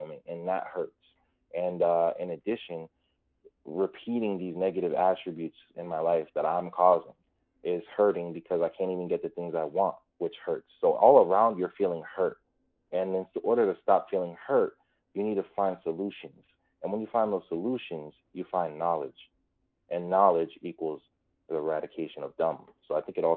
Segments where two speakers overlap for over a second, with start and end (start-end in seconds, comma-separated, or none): none